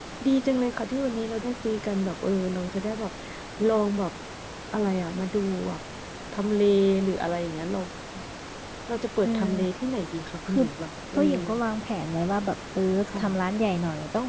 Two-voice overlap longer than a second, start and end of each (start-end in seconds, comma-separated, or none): none